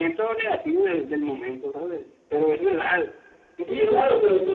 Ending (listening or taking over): taking over